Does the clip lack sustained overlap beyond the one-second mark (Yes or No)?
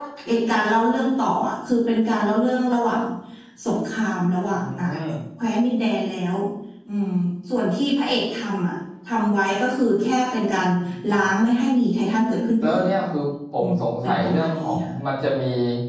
No